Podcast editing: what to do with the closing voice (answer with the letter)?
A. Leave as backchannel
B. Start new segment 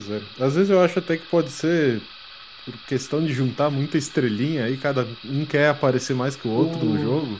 A